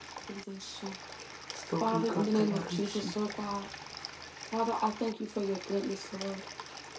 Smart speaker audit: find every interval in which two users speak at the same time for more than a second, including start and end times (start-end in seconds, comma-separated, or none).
1.8-3.1